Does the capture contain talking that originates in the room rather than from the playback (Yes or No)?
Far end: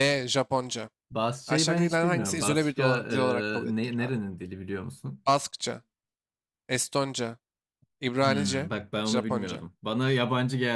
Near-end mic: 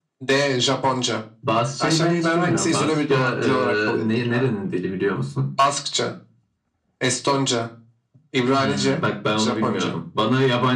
No